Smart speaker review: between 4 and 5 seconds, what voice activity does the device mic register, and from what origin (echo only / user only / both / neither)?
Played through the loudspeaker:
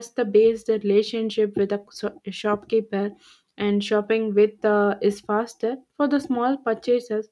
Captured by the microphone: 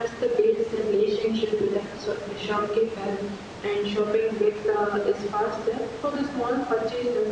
echo only